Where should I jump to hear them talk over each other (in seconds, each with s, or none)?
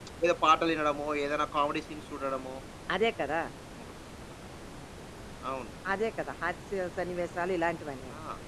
none